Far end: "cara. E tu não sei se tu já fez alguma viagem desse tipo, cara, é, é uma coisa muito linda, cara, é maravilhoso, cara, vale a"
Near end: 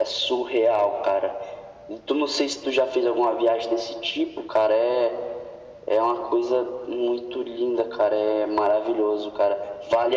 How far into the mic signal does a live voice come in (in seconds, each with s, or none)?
none